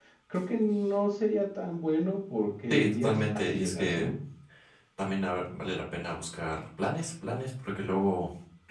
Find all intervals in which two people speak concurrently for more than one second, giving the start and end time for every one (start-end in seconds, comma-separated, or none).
2.7-4.1